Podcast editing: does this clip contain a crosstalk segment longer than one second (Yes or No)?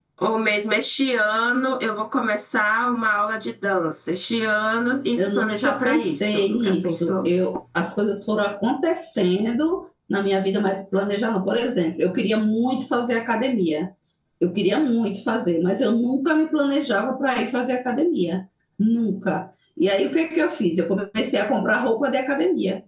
Yes